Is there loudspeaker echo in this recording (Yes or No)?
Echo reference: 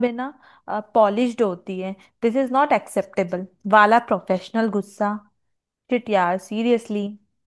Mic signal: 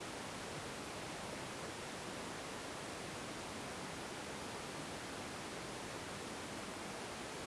No